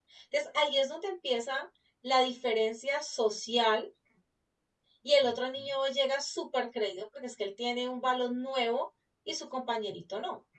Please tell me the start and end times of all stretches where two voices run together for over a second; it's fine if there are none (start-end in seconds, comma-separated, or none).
none